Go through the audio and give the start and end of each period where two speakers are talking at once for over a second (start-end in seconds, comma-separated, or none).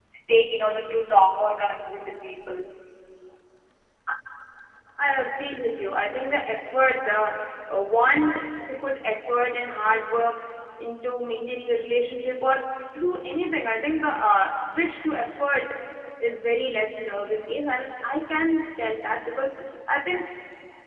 none